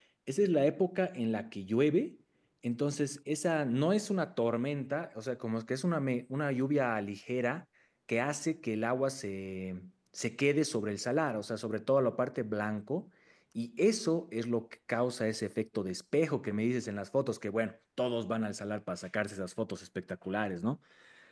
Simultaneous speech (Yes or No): No